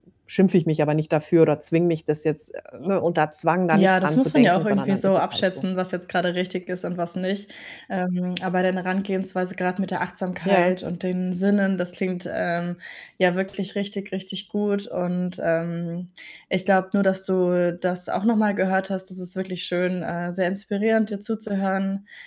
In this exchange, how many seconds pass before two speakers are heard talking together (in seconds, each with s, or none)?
3.7 s